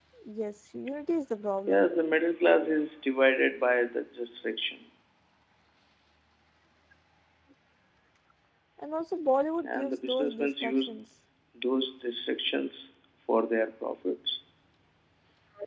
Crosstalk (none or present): present